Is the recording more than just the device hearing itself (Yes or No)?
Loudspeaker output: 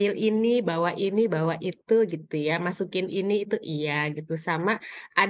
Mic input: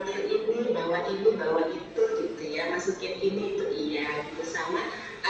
No